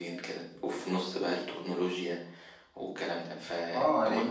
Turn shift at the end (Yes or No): Yes